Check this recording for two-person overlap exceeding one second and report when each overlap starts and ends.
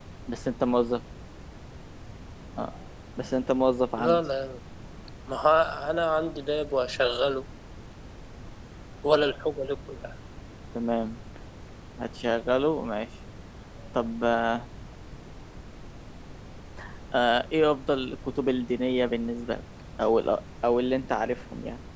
none

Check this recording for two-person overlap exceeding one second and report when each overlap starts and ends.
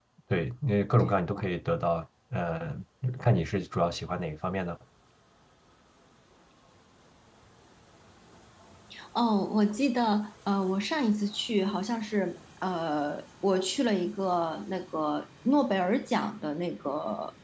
none

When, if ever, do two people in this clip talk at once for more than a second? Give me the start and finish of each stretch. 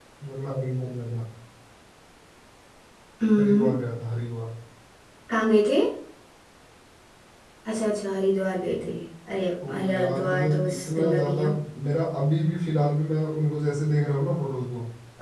9.7-11.4

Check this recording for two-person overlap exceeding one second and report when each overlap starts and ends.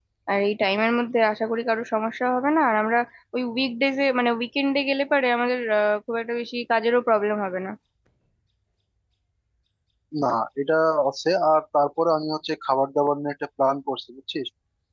none

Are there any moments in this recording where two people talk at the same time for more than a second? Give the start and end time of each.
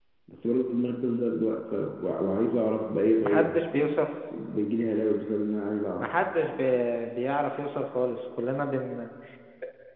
none

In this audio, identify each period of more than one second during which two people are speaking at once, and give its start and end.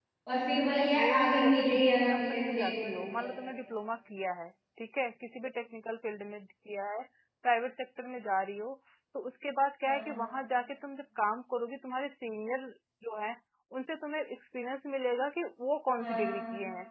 0.7-3.3

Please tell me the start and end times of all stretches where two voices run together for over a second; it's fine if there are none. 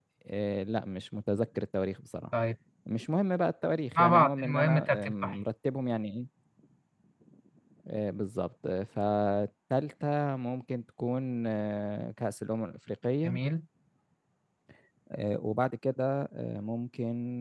4.0-5.4

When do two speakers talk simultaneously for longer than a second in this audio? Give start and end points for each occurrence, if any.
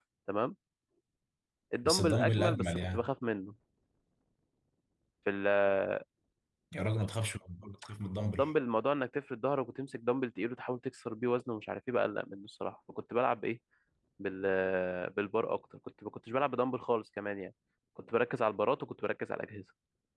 1.8-3.1

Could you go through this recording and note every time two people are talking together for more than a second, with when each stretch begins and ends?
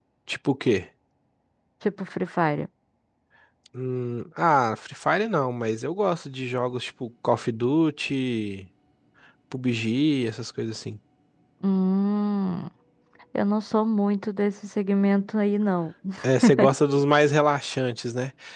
none

